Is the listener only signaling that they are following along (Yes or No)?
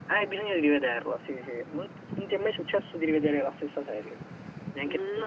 No